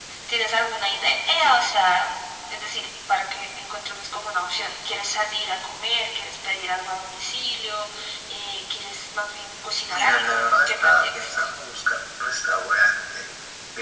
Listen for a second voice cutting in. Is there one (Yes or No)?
Yes